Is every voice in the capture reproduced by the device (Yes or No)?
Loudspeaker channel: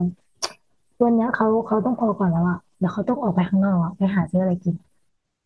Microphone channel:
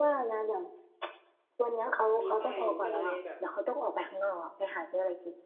No